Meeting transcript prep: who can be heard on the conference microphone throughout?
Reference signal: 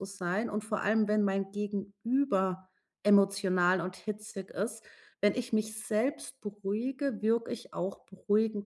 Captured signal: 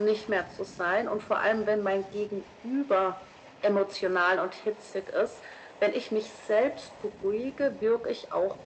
echo only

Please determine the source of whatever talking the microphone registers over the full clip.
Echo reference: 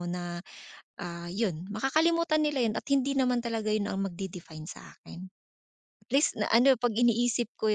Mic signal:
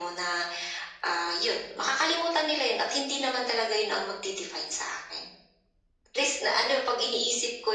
echo only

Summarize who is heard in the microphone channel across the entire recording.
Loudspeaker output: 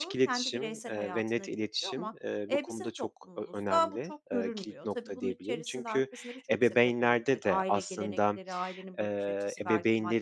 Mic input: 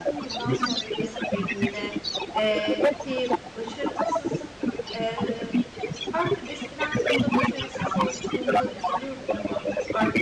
both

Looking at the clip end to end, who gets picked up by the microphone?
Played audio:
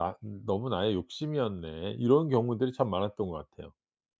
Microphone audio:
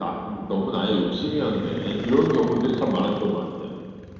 echo only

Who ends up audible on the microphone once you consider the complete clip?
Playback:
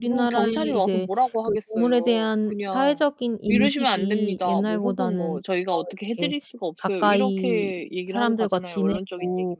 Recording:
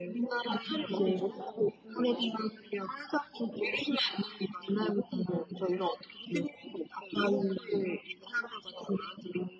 both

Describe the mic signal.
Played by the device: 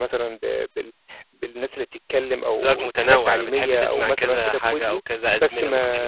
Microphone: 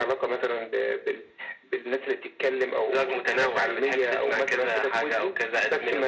echo only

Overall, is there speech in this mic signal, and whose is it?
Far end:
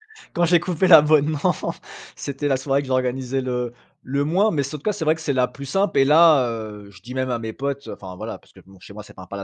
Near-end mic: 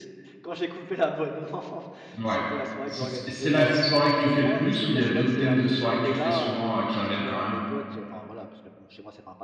both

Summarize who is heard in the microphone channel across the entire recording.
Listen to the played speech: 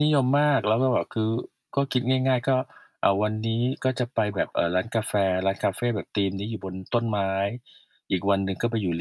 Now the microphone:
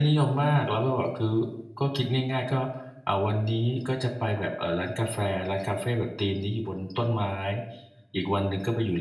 echo only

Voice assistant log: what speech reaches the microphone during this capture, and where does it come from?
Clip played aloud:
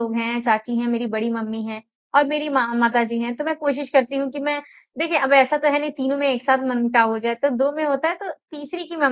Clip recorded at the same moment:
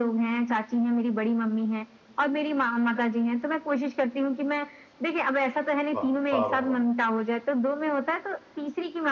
both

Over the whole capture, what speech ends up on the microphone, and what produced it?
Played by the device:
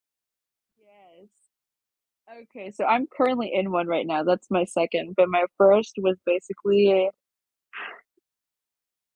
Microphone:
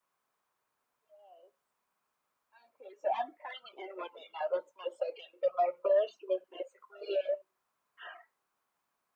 echo only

